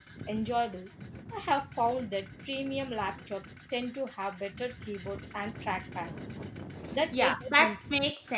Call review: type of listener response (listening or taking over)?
taking over